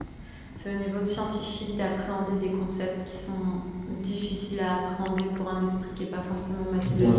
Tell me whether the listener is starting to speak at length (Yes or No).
Yes